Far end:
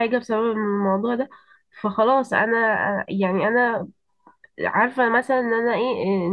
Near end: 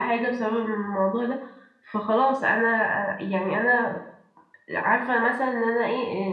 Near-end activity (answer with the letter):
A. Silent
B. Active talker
A